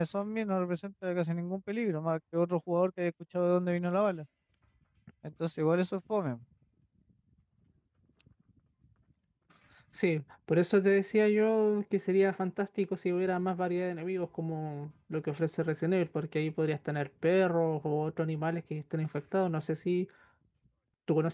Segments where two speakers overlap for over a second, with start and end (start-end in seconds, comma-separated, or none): none